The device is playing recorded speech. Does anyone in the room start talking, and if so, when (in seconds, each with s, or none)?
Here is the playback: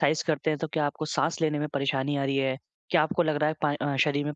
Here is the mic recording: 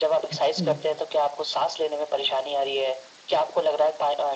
0.3 s